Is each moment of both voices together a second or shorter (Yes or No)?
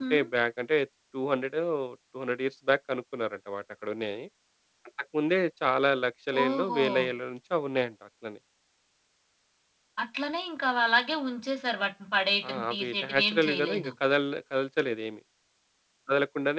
No